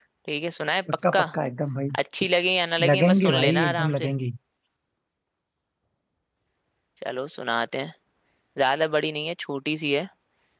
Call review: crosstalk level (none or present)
present